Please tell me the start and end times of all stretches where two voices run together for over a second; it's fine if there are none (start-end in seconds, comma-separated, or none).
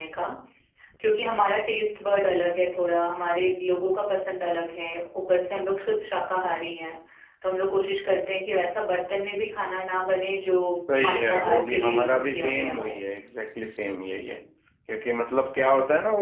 11.0-13.0